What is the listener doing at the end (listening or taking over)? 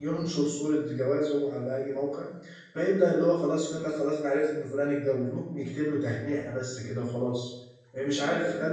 listening